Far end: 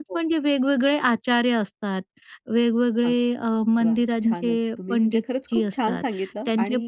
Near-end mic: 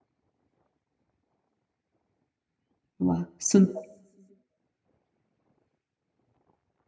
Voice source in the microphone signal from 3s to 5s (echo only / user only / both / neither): user only